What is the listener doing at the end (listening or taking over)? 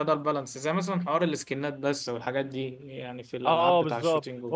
taking over